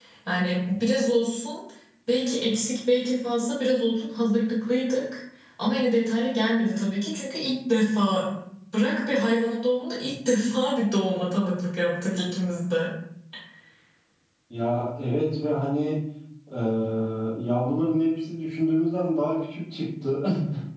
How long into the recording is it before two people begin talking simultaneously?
none

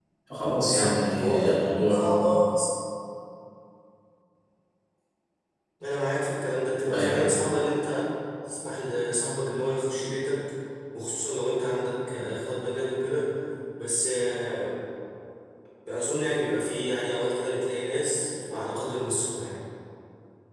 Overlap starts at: 1 s

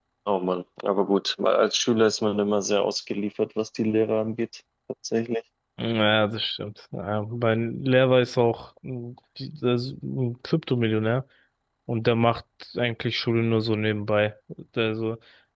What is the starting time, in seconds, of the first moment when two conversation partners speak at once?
none

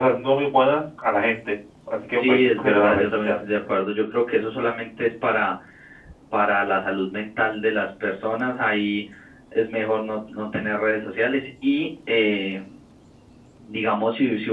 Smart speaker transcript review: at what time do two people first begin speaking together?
2 s

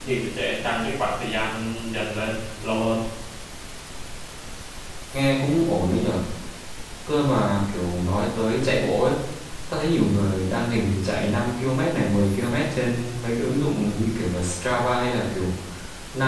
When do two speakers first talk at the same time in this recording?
none

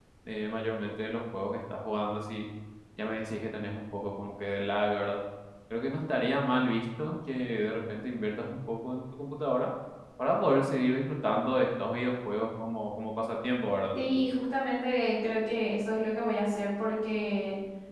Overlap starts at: none

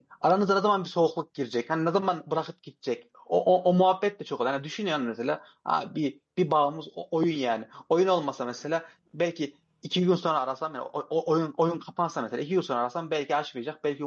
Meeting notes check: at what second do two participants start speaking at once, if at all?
none

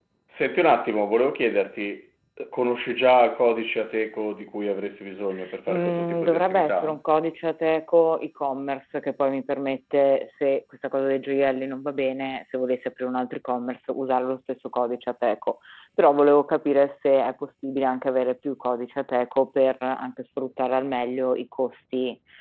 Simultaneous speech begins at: 6 s

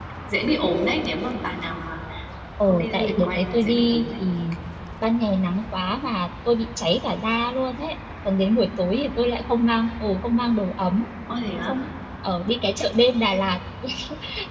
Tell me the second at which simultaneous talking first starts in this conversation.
3 s

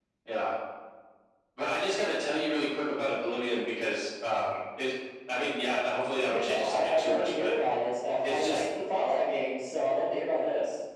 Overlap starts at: 6 s

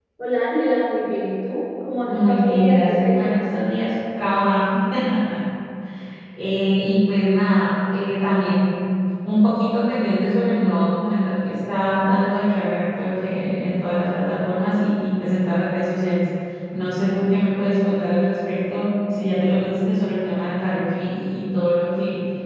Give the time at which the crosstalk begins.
2 s

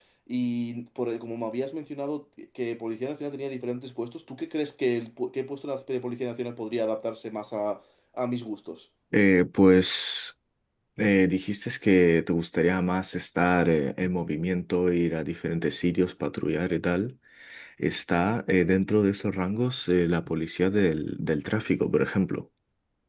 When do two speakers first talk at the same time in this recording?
none

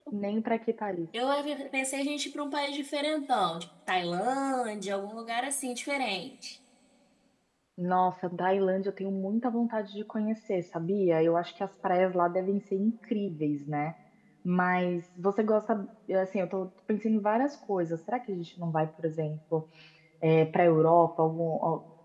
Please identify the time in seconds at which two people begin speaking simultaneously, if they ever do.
none

